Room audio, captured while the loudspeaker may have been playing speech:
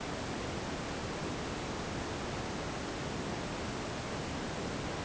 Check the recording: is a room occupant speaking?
No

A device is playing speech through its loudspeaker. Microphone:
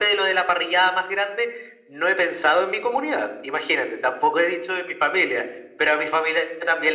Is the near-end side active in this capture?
No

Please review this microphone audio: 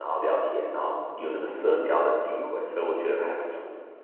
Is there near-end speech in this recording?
Yes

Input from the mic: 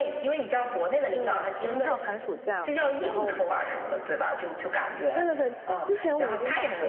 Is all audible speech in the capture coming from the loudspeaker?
No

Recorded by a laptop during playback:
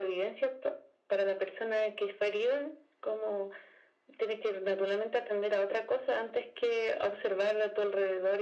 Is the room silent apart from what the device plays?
Yes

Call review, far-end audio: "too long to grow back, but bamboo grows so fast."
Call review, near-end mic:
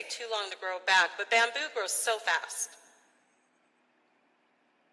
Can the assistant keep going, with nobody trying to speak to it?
Yes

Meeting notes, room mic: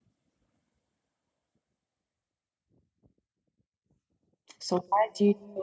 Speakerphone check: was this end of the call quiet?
No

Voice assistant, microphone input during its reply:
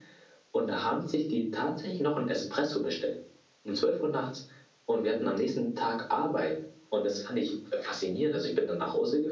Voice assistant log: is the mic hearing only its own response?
Yes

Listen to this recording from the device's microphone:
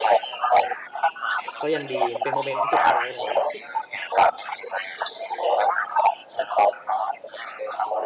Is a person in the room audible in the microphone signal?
Yes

